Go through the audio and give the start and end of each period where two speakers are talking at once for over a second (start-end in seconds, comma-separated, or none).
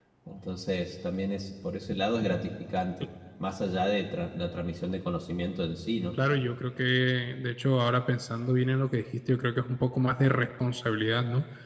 none